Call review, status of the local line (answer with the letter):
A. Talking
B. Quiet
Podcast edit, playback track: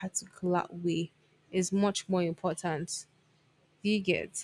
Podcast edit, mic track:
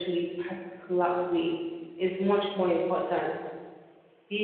B